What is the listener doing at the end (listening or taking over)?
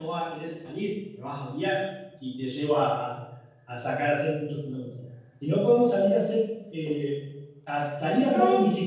taking over